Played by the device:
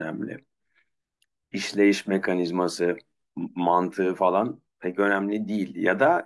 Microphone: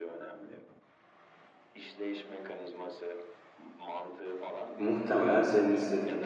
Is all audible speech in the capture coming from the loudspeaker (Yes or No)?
No